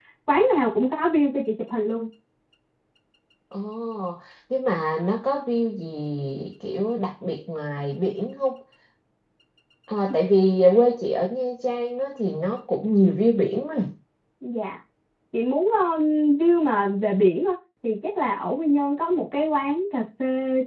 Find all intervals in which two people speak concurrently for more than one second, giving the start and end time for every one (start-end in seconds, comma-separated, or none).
none